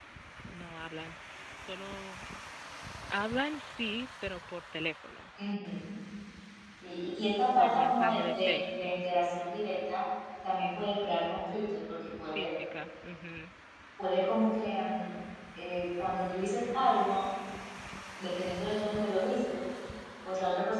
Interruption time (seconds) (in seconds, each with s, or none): 7.6 s